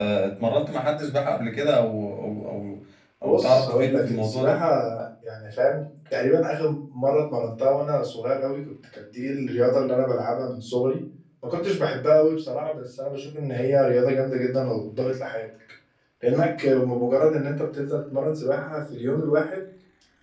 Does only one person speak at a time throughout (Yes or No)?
No